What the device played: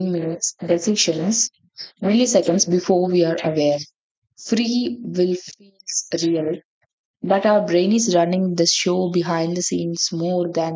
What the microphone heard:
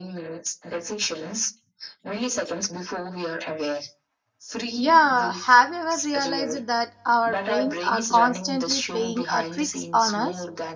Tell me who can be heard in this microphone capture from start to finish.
both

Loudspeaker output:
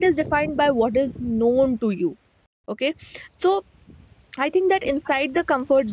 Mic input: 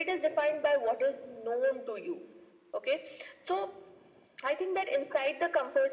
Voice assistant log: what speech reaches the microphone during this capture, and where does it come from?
echo only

